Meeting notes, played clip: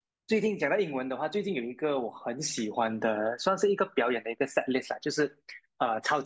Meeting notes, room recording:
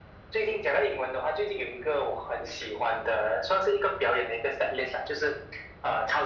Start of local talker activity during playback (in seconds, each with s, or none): none